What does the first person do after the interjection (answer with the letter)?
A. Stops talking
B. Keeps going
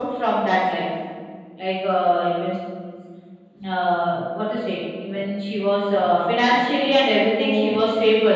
B